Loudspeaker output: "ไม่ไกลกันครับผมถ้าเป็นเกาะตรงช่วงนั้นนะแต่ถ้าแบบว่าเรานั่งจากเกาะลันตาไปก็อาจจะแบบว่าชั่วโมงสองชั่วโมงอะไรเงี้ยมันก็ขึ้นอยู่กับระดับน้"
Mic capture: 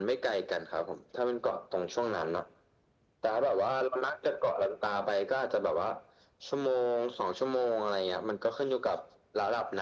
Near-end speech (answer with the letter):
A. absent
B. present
A